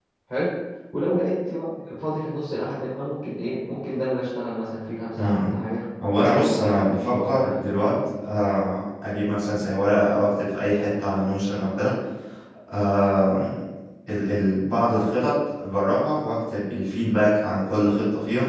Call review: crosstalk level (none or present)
present